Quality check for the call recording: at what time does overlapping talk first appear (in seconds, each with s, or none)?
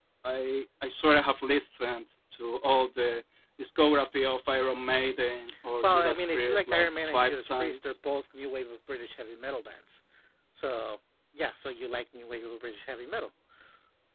5.8 s